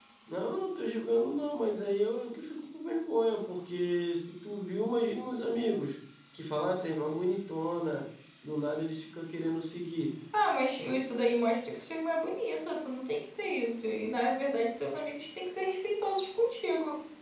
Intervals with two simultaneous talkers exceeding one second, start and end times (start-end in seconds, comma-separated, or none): none